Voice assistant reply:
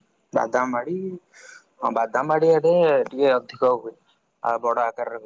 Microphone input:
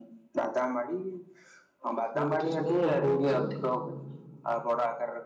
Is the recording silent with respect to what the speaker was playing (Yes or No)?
No